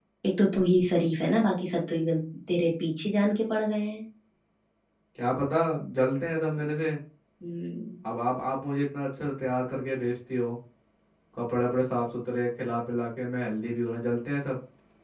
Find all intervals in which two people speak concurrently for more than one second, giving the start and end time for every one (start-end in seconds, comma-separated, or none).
none